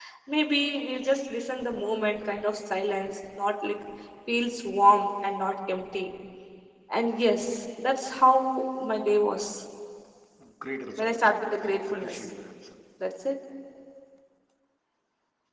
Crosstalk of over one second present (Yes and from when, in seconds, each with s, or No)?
Yes, from 11.0 s